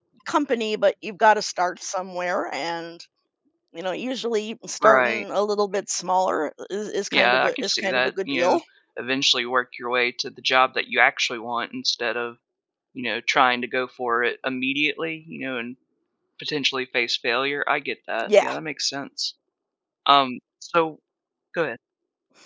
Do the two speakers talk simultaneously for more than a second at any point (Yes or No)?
Yes